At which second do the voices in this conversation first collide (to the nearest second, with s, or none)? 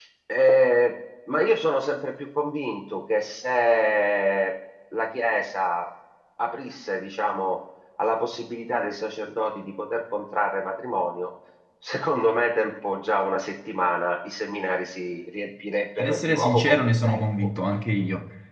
16 s